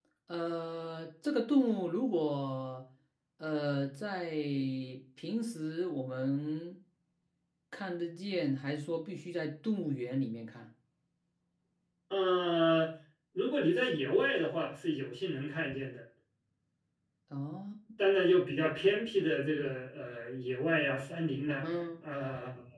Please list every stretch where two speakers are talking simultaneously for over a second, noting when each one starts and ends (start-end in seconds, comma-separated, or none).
none